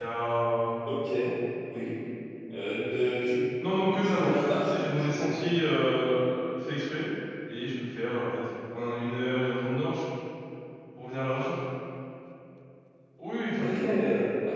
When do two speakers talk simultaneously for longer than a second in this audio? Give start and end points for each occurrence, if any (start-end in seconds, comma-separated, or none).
3.9-5.3